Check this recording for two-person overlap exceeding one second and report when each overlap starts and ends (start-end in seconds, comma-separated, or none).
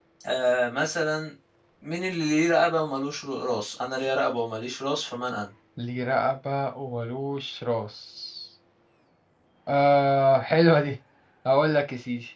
none